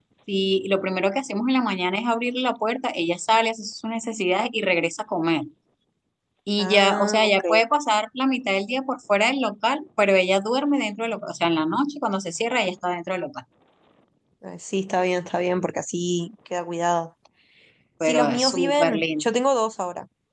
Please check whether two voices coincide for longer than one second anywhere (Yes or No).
Yes